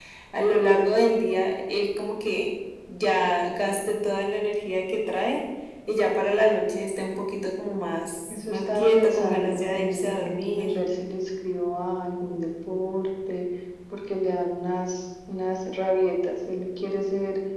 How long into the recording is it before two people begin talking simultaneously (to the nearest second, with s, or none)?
8 s